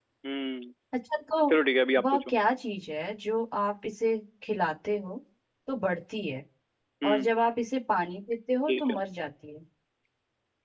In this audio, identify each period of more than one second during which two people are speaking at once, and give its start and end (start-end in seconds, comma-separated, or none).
none